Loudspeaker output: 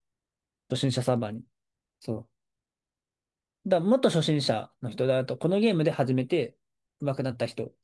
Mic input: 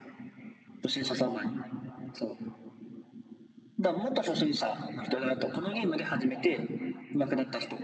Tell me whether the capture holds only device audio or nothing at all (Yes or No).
Yes